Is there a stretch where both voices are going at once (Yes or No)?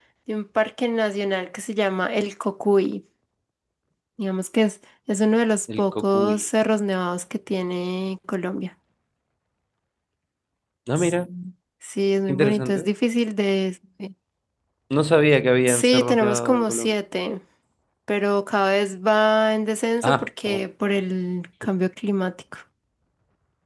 Yes